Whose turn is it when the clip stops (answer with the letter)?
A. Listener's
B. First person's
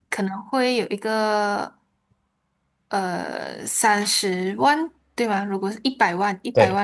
B